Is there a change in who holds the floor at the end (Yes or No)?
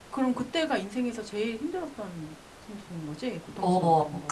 Yes